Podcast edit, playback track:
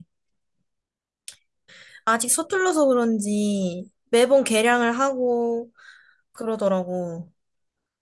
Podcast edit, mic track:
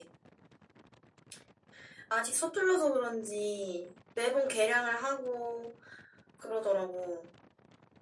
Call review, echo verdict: present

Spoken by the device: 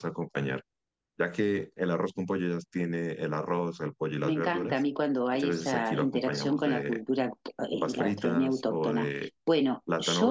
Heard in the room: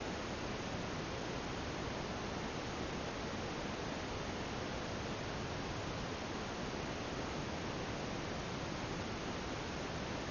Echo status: none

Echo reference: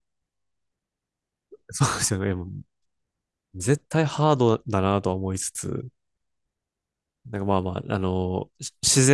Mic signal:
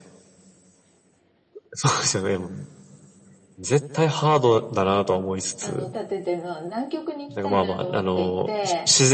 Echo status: present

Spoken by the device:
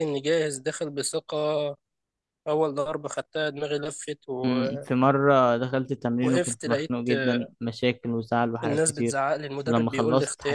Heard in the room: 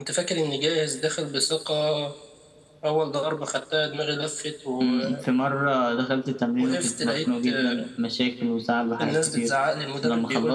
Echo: present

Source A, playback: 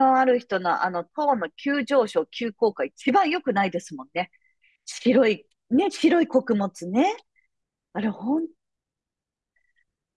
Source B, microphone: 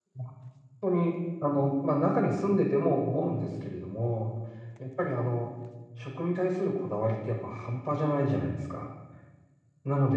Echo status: none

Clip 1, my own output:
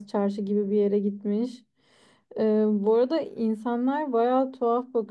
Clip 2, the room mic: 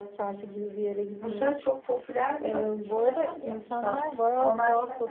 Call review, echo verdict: present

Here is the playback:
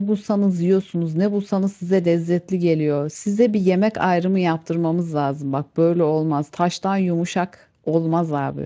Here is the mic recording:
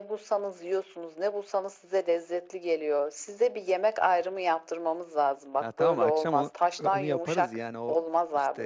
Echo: present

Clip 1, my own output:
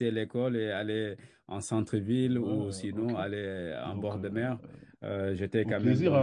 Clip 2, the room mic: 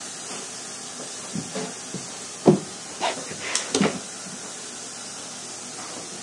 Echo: none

